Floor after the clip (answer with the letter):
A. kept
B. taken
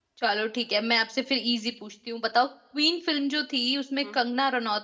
A